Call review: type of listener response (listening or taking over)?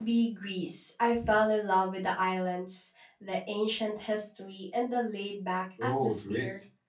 taking over